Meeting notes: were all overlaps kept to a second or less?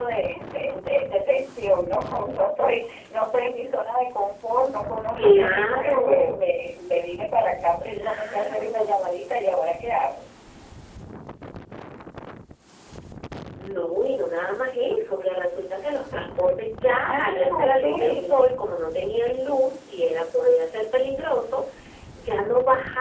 No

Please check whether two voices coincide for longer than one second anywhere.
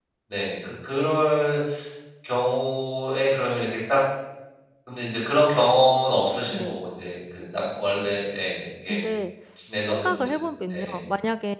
No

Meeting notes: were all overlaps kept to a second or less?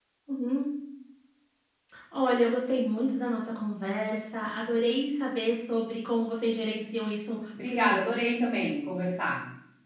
Yes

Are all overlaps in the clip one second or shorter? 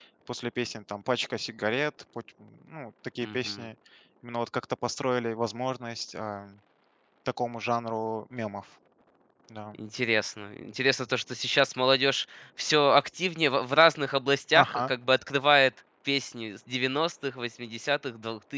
Yes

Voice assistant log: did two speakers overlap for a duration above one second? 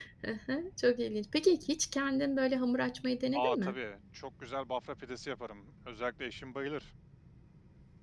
No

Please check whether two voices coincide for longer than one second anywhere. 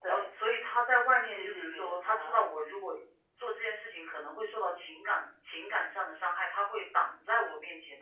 Yes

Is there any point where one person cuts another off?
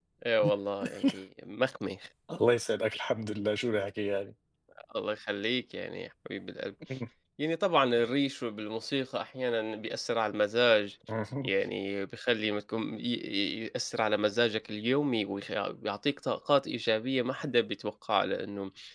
No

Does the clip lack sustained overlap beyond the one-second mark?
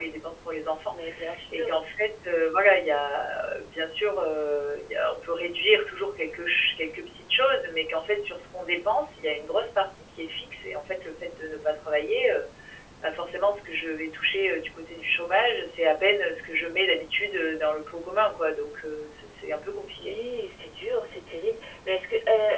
Yes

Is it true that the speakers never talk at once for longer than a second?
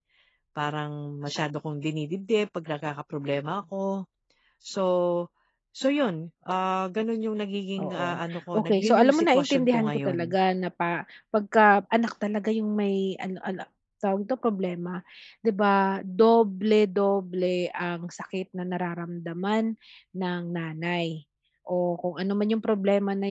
No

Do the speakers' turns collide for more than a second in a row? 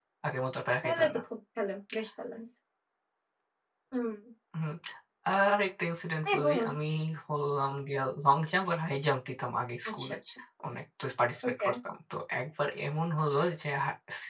No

